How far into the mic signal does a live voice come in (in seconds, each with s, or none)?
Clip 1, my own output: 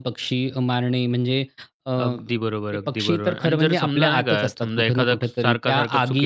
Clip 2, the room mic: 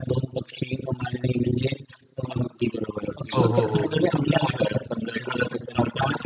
3.4 s